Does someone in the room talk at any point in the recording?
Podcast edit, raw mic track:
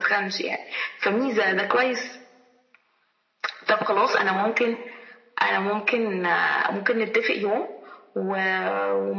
No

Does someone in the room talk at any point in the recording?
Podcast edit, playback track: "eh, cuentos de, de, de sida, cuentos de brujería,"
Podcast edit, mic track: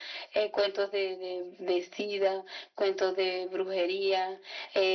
No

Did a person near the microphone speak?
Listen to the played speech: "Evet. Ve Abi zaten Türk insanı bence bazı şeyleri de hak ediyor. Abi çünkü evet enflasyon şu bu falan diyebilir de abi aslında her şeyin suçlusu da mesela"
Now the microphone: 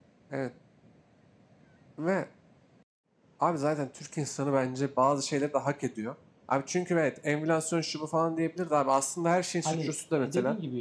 Yes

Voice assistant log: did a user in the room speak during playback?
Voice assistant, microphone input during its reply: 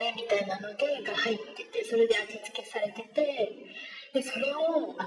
No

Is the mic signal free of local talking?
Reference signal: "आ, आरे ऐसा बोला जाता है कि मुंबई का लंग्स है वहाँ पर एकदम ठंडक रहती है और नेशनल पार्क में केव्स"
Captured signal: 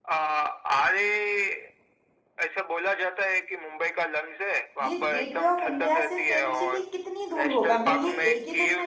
No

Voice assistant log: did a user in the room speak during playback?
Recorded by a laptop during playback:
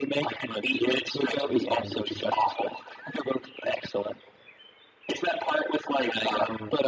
No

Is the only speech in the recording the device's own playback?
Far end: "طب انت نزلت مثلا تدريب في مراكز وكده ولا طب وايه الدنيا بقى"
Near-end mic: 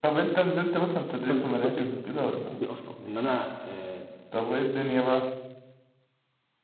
No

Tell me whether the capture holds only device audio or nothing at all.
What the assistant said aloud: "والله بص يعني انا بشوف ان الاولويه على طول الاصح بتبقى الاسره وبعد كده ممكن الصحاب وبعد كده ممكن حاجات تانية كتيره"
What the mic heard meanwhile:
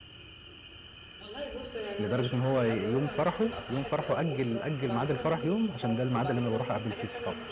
No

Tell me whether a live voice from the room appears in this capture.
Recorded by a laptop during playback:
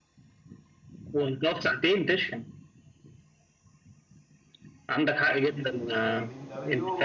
Yes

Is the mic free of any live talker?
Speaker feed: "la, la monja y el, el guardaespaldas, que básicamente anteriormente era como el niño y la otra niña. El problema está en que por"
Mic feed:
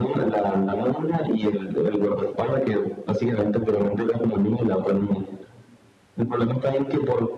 Yes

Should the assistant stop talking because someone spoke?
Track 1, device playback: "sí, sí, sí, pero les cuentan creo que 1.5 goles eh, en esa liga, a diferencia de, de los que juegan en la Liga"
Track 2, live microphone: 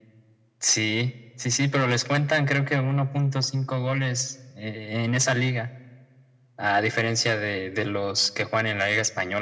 No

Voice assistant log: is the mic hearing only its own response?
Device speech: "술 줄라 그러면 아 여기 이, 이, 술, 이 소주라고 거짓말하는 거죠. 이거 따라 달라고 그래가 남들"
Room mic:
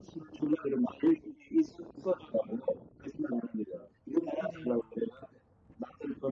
No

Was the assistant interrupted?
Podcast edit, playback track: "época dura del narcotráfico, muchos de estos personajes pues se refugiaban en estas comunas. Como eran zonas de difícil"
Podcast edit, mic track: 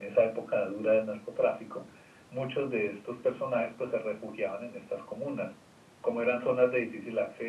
No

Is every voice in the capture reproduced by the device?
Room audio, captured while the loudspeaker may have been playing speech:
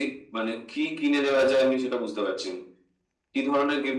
Yes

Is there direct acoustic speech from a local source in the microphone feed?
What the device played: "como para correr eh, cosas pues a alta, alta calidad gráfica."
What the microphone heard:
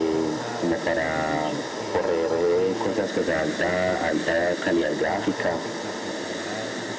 Yes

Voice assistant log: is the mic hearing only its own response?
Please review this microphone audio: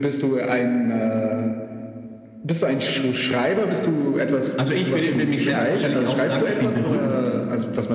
No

